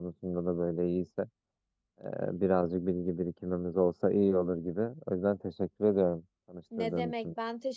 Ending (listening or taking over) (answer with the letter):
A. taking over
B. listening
A